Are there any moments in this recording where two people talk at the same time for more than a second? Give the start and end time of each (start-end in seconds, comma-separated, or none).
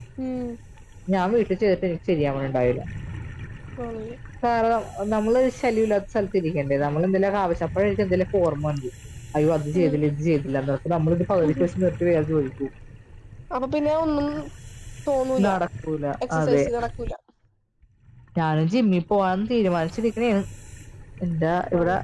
none